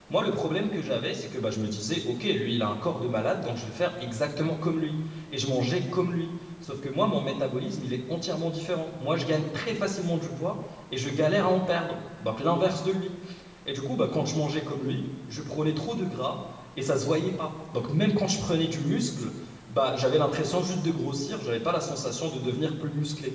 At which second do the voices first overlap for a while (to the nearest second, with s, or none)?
none